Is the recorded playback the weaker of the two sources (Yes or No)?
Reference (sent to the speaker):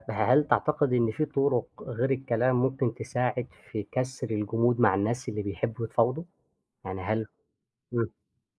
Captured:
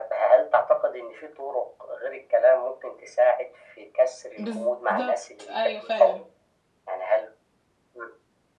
No